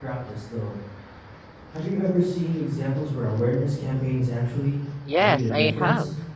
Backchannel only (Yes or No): No